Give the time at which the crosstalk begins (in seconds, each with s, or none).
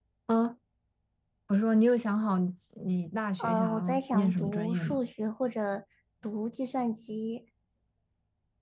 3.4 s